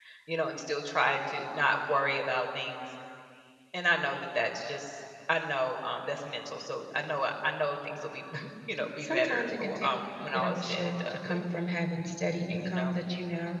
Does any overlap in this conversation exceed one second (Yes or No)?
Yes